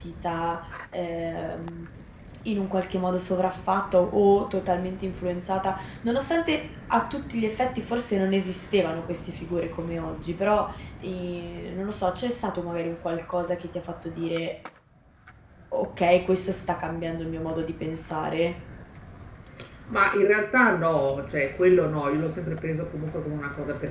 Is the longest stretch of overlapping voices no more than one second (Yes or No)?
Yes